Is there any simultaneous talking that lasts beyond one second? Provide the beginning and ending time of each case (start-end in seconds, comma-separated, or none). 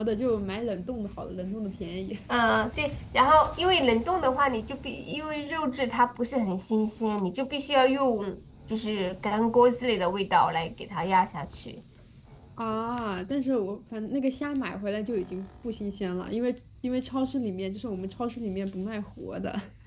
none